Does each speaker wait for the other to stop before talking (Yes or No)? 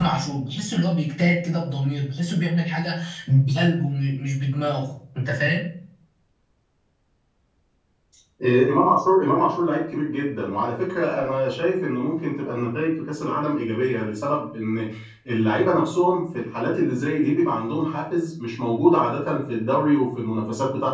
Yes